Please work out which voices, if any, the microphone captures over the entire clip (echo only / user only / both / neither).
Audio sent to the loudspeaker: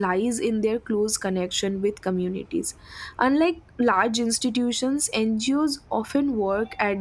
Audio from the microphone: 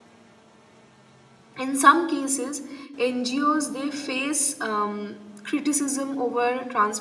user only